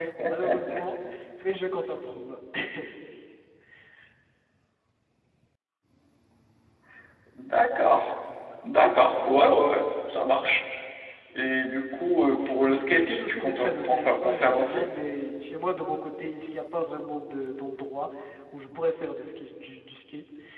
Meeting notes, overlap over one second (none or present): present